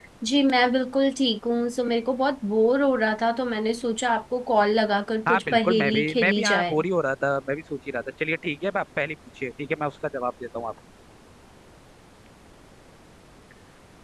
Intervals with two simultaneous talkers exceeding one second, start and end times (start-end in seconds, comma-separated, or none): 5.3-6.8